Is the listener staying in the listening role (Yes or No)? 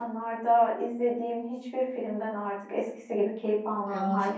No